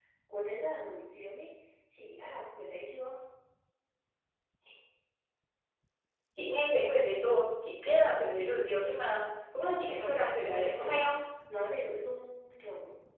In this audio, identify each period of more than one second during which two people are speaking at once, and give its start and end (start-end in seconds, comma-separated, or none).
9.8-11.0